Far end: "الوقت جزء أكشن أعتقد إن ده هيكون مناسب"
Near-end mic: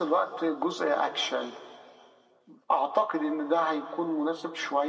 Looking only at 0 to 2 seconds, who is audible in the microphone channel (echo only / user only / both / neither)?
echo only